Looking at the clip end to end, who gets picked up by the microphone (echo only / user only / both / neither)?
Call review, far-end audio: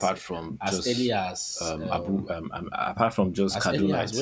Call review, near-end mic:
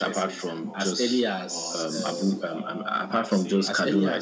both